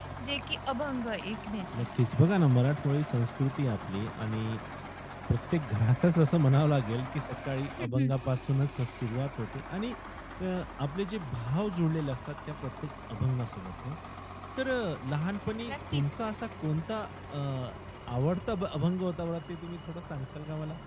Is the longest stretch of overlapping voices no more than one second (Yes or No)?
Yes